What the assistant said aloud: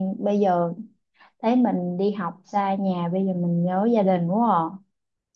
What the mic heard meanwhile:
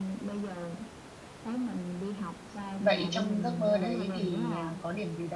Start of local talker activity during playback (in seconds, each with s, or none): 2.8 s